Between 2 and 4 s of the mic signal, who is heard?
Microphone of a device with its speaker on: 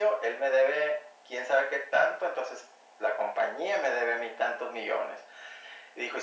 echo only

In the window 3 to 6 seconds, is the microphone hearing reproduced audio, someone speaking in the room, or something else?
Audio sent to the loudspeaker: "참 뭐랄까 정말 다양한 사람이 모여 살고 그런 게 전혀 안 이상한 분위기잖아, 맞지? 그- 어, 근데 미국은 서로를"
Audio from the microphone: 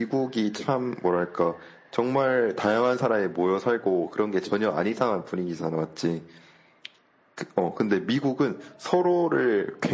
echo only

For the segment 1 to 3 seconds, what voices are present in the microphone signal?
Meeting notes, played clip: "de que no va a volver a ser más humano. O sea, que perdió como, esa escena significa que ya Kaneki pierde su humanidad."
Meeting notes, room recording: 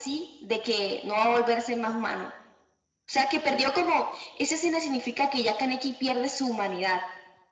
echo only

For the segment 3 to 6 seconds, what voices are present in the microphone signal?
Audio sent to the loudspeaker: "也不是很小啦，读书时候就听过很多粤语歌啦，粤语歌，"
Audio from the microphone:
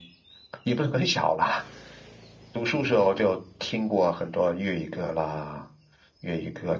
echo only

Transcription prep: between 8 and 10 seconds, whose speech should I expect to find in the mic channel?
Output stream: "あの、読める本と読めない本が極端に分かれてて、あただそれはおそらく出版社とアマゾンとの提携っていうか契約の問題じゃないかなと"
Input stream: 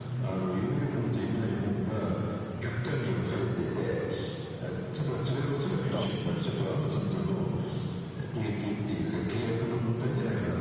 echo only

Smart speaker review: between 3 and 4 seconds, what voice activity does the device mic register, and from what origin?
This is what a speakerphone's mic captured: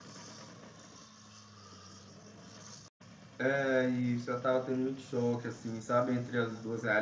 user only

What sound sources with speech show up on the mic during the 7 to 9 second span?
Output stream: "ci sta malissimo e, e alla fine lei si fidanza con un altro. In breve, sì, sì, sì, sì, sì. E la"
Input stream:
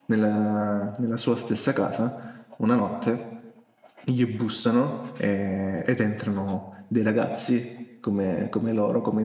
user only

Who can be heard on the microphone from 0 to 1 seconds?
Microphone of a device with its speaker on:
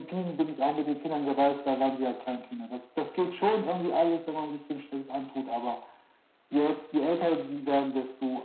echo only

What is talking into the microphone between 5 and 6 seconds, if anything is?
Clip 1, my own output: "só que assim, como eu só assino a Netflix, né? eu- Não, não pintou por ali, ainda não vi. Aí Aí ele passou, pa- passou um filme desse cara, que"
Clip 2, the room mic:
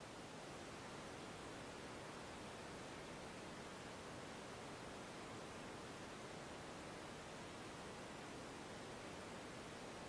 neither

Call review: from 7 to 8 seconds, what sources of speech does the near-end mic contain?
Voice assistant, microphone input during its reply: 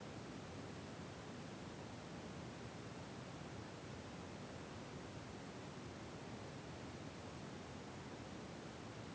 neither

